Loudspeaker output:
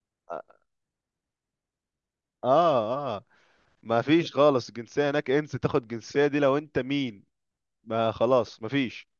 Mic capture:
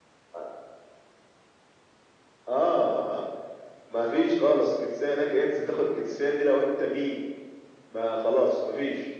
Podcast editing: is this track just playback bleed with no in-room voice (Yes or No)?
Yes